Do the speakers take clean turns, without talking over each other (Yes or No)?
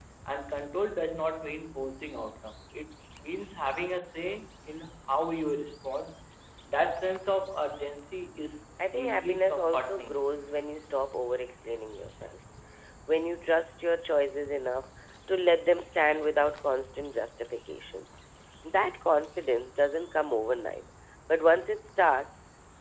No